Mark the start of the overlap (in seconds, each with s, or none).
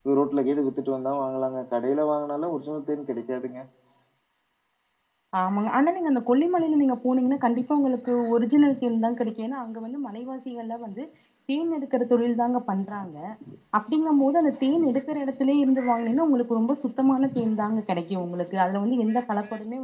none